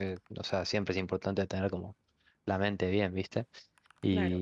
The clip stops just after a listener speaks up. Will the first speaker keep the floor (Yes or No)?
Yes